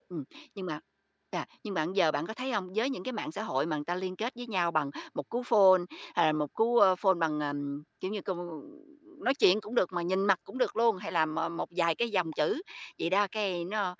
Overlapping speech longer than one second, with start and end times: none

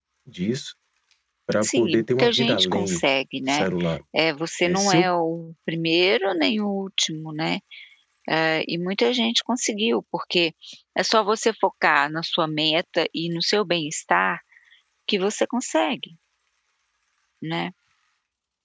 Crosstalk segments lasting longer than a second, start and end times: 1.6-3.0

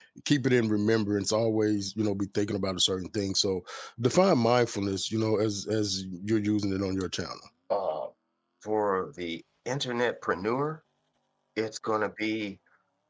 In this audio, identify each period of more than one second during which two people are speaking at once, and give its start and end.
none

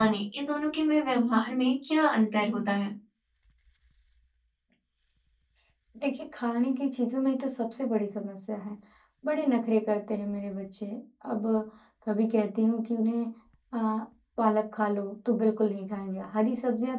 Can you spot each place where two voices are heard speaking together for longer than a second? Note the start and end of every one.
none

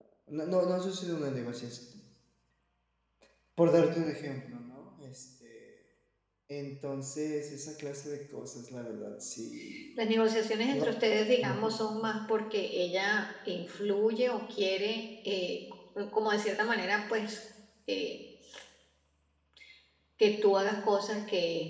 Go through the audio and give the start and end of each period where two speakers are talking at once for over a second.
none

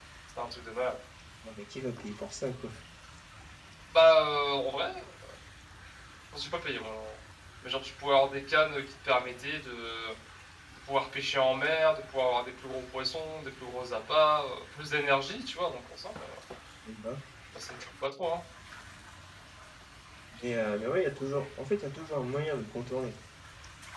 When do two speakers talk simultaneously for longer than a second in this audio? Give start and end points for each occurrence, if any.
none

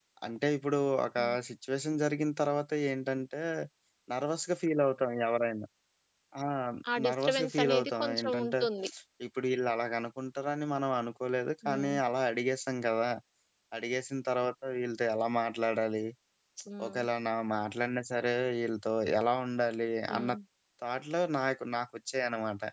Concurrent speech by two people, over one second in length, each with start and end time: 7.0-8.5

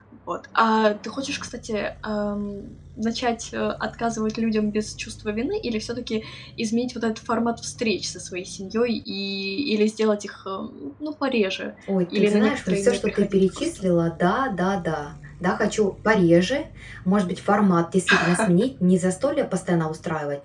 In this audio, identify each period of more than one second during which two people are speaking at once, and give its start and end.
12.2-13.9

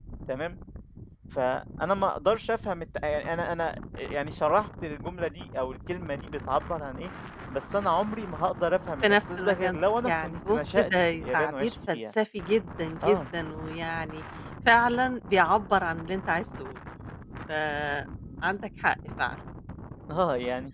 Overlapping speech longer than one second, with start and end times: 9.0-12.0

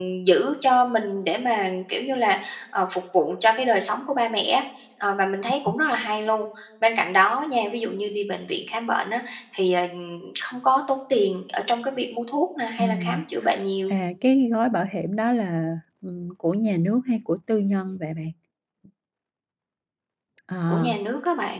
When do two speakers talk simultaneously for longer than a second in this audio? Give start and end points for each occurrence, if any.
none

